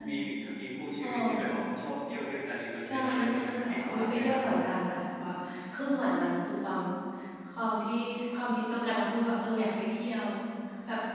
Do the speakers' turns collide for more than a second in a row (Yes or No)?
Yes